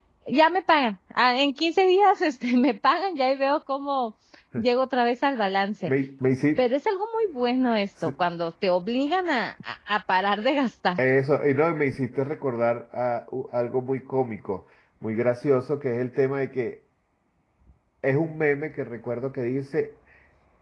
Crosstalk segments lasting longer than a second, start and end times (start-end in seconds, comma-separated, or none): none